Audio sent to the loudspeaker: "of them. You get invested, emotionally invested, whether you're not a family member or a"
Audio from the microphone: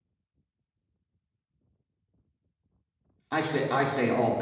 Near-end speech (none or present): present